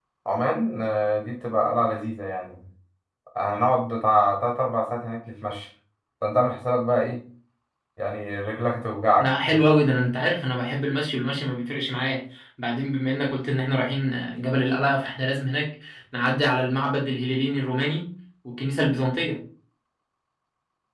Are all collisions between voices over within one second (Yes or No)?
Yes